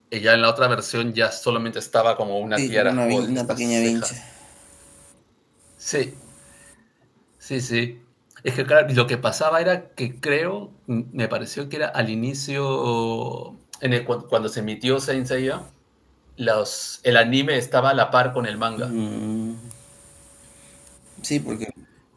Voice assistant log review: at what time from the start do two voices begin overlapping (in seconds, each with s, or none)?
2.6 s